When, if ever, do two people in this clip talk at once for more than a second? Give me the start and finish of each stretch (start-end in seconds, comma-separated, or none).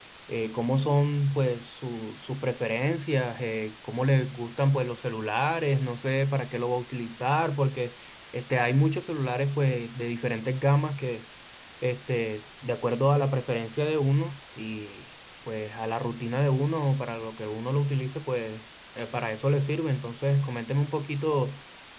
none